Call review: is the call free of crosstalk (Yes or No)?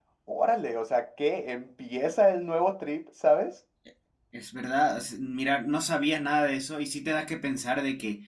Yes